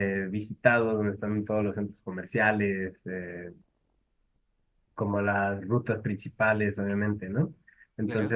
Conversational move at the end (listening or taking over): listening